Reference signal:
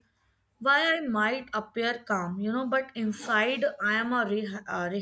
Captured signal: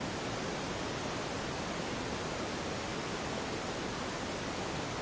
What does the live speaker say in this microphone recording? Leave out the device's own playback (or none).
none